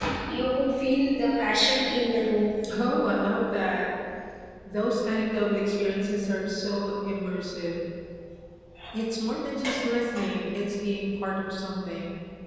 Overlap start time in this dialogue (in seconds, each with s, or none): none